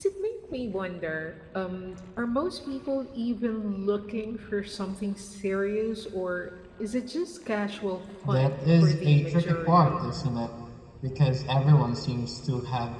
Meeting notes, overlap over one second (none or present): present